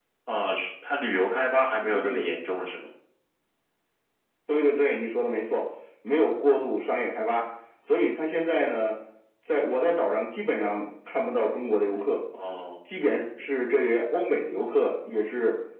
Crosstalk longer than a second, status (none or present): none